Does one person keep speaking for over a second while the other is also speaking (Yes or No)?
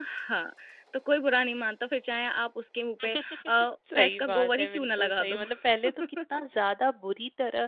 Yes